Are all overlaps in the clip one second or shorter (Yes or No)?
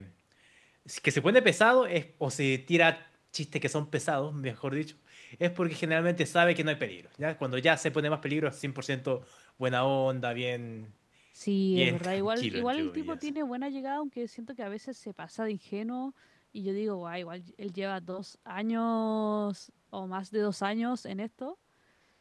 No